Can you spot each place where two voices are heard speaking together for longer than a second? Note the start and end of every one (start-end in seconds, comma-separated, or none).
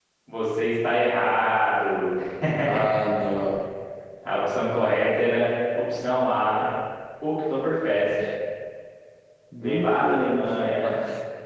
9.6-11.0